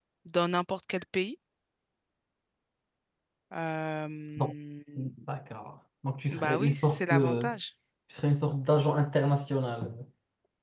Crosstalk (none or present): present